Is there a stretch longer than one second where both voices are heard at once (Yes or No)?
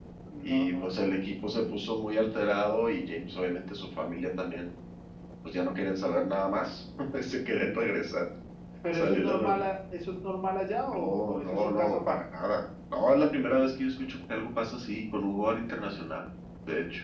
Yes